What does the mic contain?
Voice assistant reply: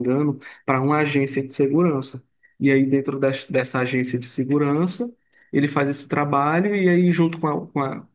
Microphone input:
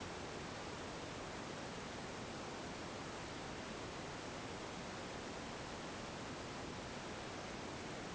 neither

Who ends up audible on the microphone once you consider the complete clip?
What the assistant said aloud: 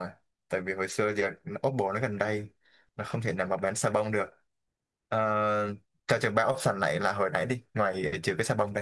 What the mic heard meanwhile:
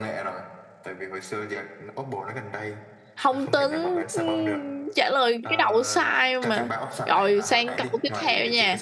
both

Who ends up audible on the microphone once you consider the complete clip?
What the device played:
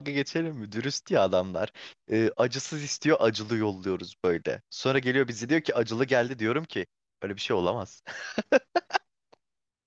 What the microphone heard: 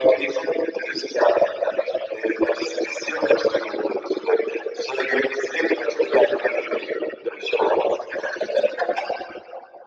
echo only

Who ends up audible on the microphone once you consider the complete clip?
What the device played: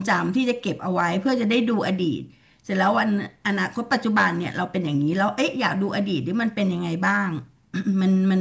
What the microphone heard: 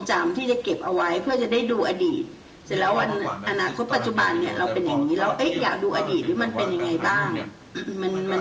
both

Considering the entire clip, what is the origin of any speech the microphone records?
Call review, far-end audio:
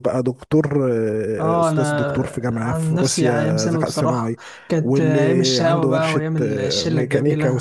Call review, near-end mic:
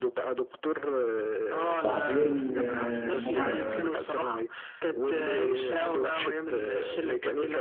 both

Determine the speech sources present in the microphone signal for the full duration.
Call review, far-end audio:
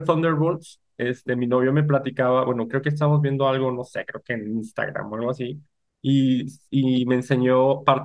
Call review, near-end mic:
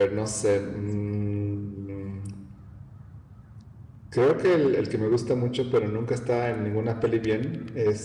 user only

